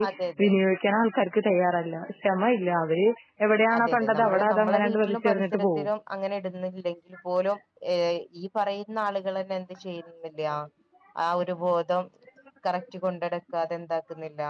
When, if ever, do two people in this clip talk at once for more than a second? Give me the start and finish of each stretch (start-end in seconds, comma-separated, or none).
3.8-5.9